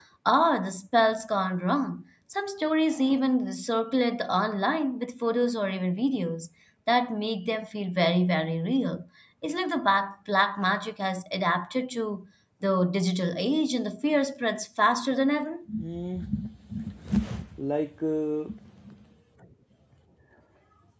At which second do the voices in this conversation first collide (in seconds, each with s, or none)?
none